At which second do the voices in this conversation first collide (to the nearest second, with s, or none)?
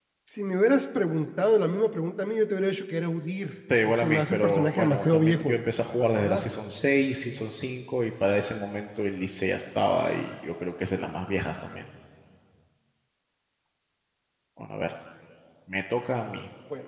4 s